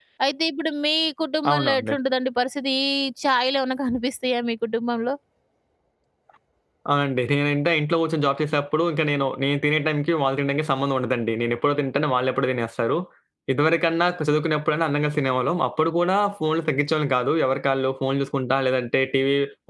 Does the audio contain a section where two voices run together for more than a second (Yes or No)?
No